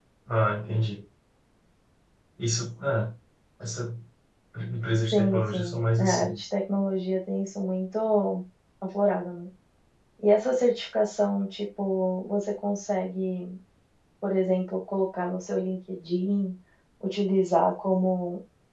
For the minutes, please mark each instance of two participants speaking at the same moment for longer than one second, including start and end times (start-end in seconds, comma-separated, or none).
5.1-6.4